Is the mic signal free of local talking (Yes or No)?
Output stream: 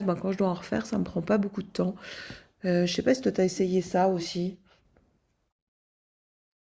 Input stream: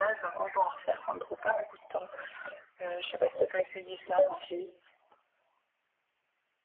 Yes